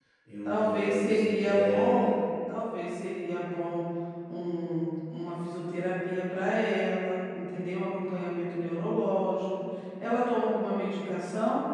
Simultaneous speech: Yes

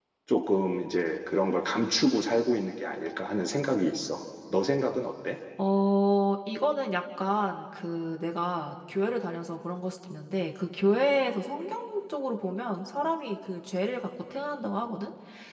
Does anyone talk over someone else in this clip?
No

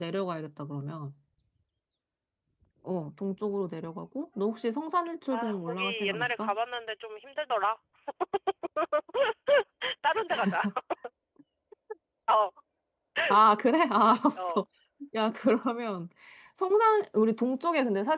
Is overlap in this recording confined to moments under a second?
No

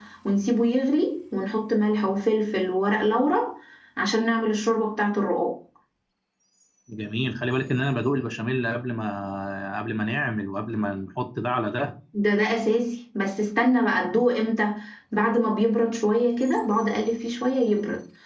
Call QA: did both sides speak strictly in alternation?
Yes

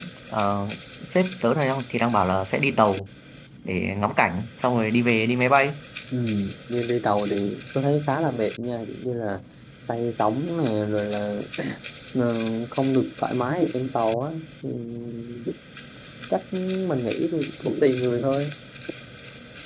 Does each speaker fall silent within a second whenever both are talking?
Yes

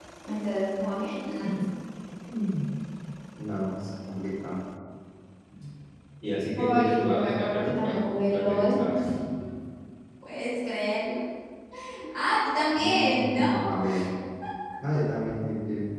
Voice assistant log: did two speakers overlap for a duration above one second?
Yes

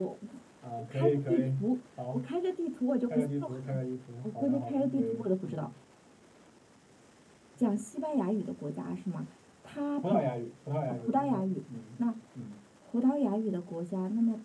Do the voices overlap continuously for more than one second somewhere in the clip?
Yes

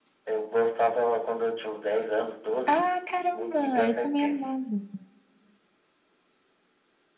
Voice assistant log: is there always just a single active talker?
No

